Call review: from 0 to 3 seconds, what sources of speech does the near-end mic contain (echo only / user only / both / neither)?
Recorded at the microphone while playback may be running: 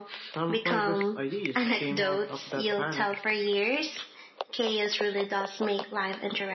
echo only